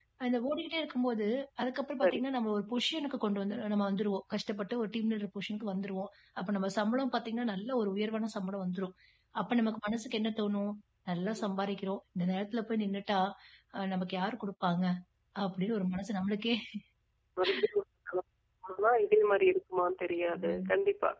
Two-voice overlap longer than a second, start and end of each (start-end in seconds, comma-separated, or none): none